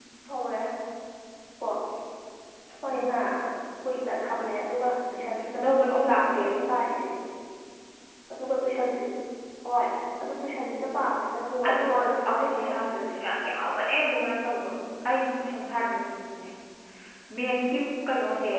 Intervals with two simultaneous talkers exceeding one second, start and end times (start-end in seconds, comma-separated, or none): 5.1-6.4, 11.7-13.1